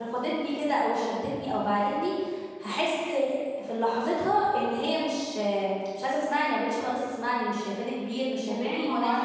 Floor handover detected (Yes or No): Yes